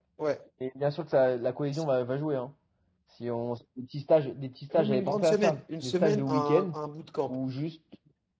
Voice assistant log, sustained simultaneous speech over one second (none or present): present